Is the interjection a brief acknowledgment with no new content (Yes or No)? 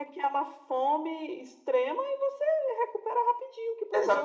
No